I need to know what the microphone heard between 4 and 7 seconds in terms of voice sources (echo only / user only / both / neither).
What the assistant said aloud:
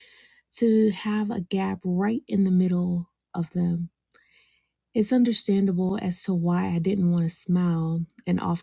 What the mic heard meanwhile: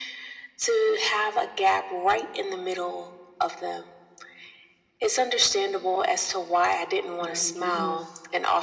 echo only